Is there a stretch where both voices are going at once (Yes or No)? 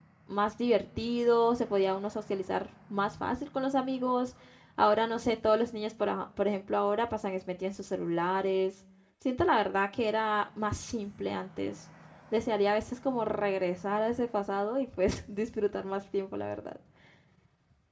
No